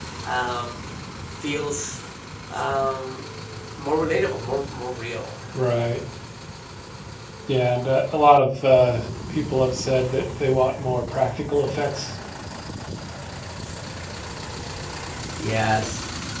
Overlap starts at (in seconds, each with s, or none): none